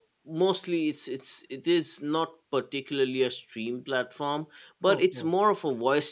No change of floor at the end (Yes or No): Yes